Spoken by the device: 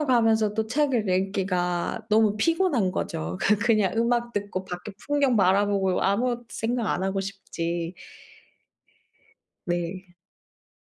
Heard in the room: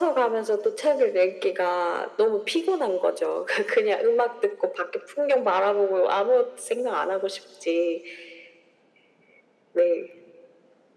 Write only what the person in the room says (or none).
none